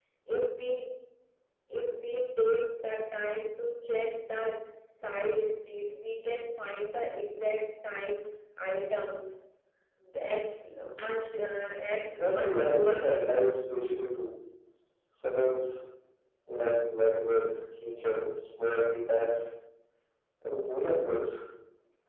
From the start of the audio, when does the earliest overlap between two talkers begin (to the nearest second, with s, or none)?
12 s